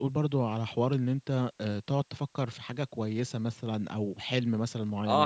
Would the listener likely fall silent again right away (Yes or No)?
No